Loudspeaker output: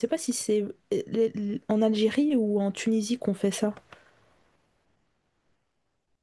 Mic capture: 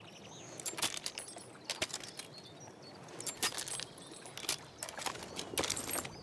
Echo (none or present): none